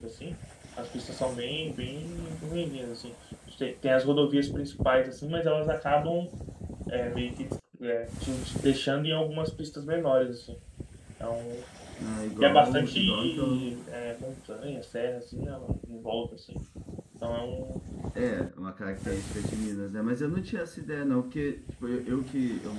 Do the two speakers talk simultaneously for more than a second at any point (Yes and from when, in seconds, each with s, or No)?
Yes, from 12.4 s